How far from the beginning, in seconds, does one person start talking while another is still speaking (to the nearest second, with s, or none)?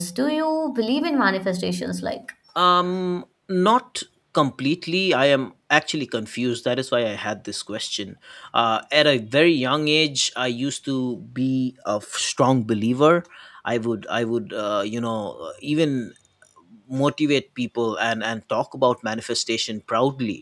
none